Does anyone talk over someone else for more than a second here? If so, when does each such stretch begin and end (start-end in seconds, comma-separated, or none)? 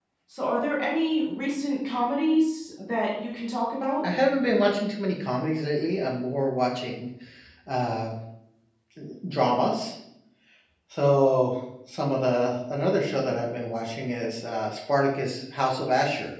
none